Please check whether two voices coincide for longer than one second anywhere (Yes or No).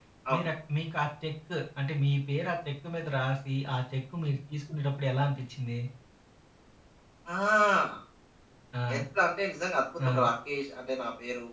No